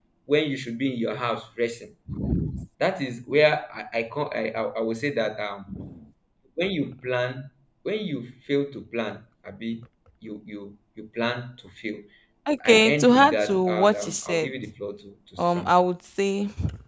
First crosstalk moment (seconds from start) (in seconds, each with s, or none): 12.7 s